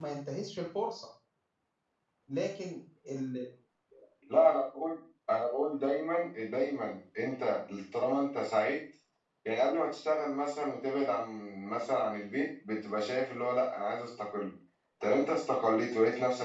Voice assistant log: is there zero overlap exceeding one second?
Yes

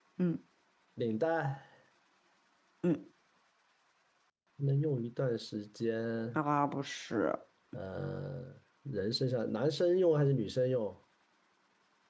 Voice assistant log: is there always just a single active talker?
Yes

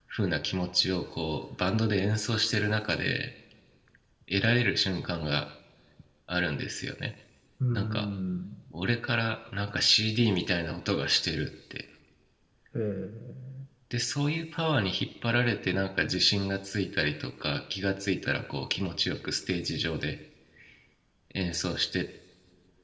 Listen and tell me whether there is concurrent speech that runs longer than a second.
No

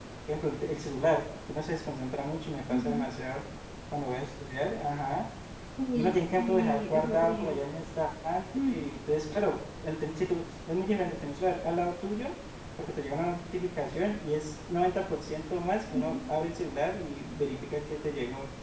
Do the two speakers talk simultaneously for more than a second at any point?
Yes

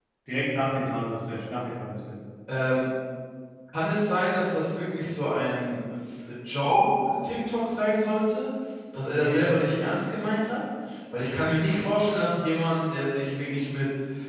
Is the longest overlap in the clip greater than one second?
No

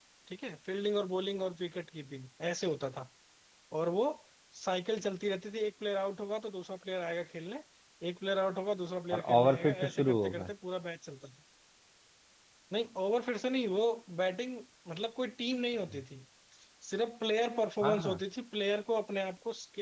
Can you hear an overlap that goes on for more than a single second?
Yes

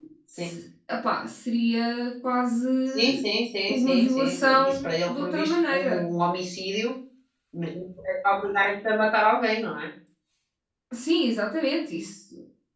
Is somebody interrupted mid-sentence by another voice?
Yes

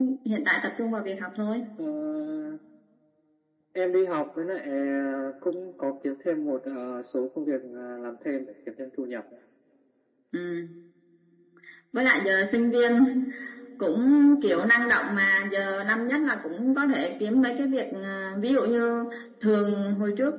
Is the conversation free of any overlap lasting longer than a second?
Yes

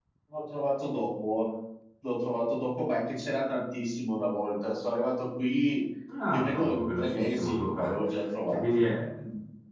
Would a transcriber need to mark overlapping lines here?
Yes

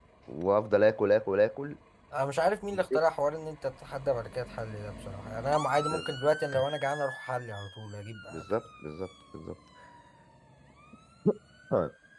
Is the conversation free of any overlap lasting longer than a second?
Yes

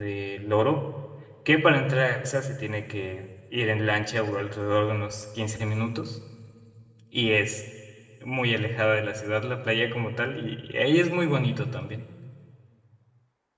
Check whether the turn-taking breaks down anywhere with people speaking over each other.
No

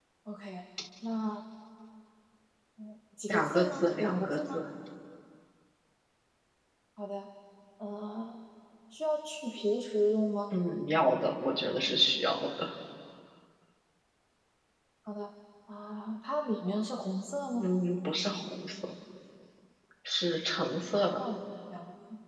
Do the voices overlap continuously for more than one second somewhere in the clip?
Yes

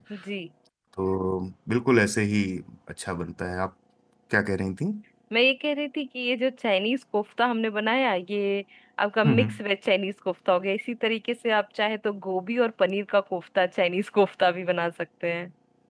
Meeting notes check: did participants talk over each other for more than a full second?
No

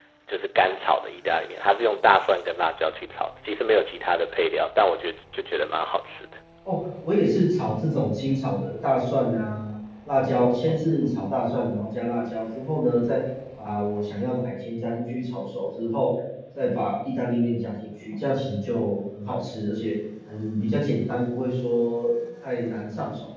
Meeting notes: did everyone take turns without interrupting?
Yes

